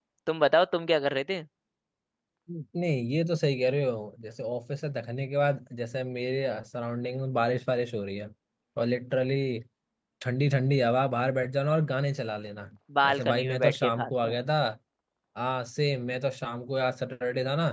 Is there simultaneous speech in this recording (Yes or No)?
Yes